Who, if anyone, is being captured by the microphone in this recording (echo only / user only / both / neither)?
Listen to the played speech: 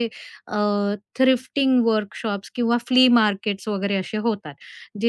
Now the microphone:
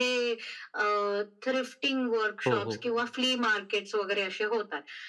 both